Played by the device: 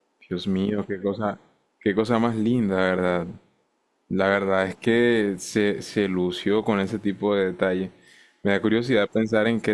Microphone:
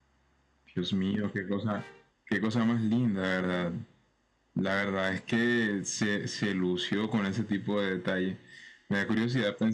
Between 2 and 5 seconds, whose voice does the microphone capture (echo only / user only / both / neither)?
echo only